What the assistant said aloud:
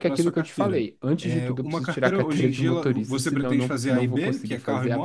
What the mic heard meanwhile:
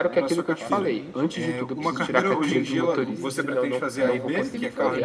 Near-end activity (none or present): present